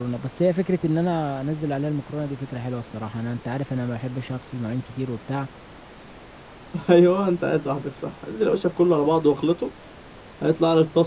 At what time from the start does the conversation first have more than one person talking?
none

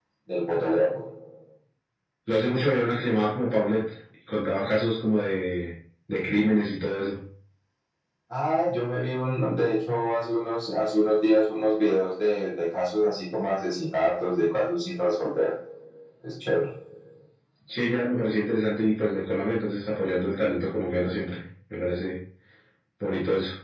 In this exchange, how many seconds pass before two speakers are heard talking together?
none

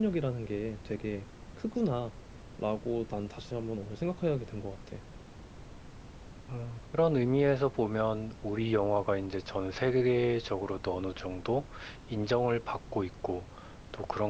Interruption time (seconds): none

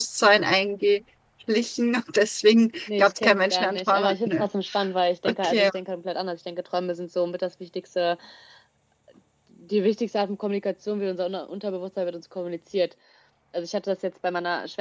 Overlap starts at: 3 s

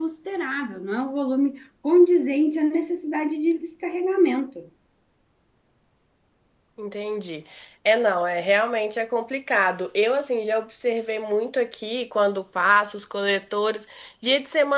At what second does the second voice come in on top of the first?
none

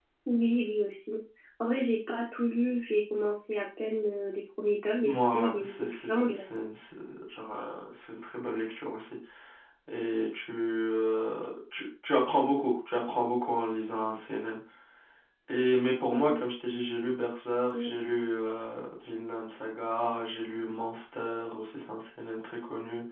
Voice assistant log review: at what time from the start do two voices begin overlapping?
5 s

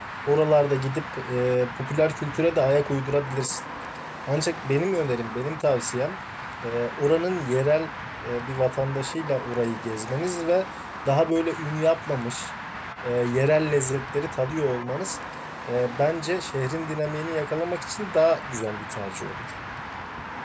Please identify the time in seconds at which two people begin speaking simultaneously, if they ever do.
none

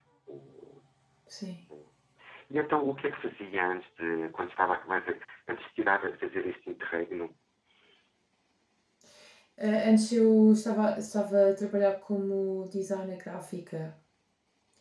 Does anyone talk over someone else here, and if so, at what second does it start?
none

